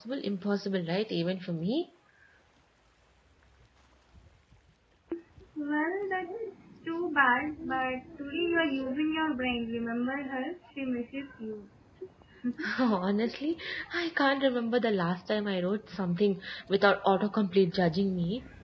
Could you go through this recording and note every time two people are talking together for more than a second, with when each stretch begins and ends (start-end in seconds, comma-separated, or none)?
none